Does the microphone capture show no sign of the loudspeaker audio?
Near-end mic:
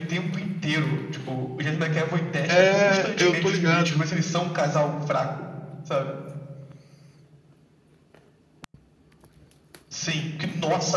No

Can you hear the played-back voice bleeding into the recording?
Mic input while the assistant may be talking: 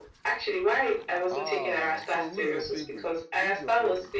Yes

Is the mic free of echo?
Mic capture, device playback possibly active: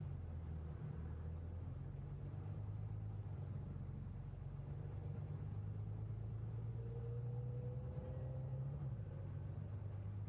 Yes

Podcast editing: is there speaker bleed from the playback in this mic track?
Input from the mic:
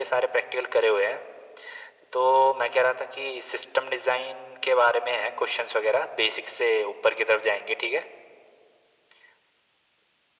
Yes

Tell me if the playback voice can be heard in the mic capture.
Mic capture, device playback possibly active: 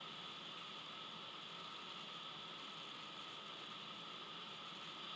No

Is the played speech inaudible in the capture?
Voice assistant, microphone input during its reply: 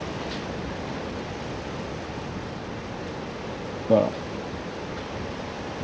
Yes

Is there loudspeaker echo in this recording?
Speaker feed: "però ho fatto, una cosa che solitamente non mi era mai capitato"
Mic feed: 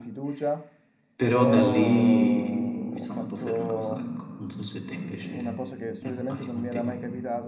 Yes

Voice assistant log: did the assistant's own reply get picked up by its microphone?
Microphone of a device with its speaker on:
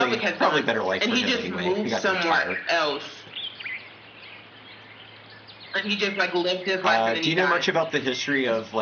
Yes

